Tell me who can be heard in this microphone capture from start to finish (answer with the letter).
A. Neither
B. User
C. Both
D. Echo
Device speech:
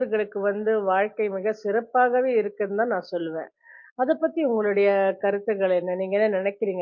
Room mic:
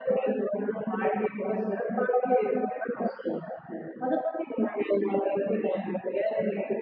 D